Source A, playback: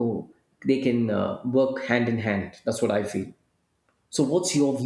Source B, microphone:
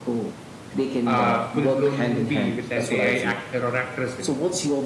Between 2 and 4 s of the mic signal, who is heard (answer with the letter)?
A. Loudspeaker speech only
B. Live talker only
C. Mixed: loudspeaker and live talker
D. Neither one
C